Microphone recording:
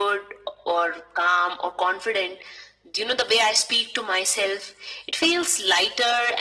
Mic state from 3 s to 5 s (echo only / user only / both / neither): echo only